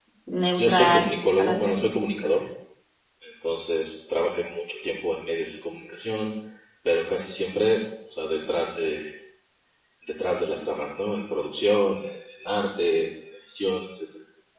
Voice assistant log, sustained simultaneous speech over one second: present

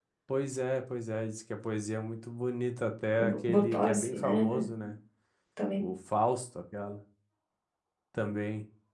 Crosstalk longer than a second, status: present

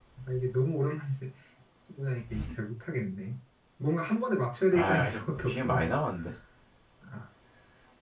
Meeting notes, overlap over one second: present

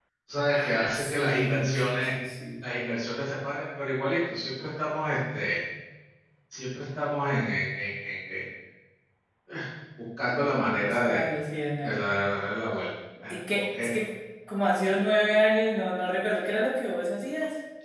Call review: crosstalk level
present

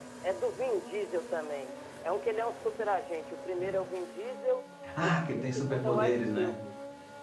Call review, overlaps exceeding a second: present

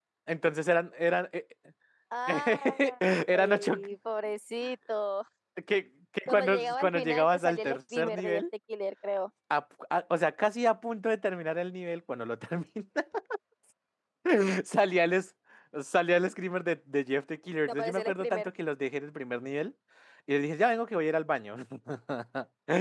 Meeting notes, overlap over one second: present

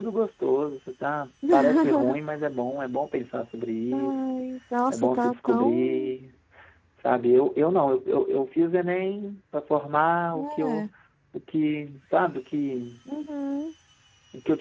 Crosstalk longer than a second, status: present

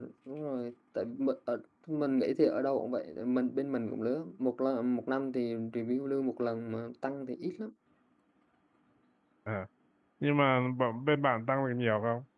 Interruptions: none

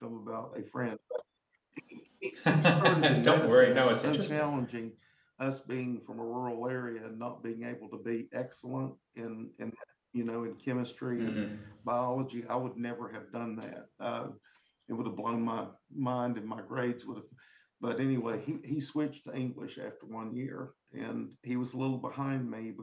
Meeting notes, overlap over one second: present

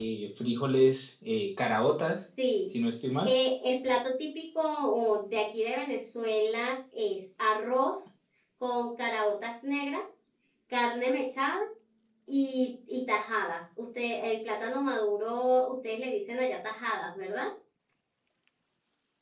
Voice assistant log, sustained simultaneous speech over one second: none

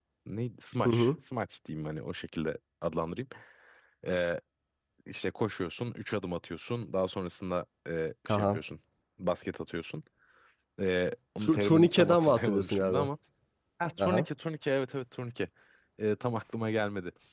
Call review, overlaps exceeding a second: present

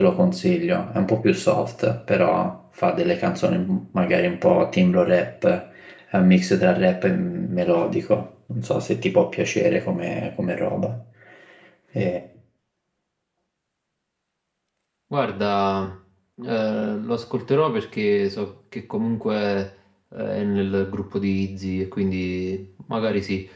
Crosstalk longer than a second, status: none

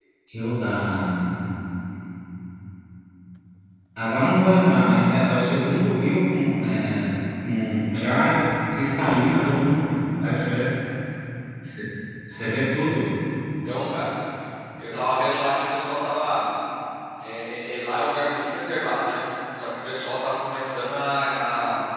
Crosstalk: none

